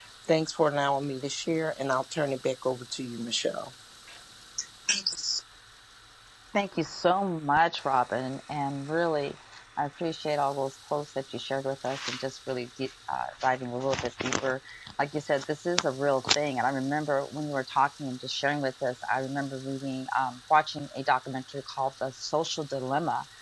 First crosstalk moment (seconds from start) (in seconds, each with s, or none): none